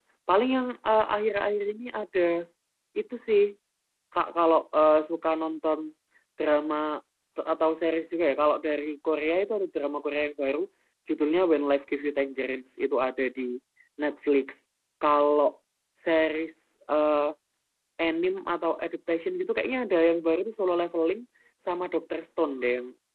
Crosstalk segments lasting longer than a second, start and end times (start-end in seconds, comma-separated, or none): none